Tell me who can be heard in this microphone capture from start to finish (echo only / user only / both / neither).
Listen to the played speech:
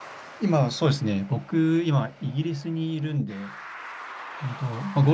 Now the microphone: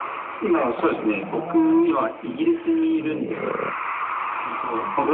both